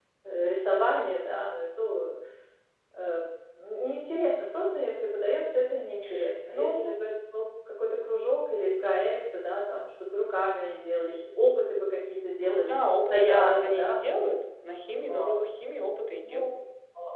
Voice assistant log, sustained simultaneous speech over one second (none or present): present